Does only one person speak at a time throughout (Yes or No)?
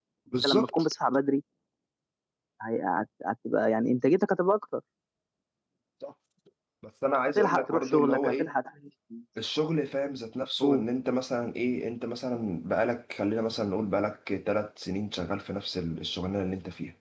No